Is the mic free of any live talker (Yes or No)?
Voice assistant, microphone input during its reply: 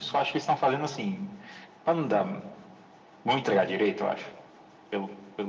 Yes